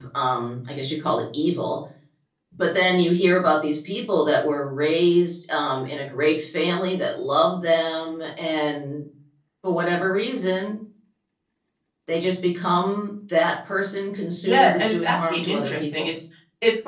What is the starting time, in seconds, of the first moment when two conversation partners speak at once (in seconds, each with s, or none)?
14.4 s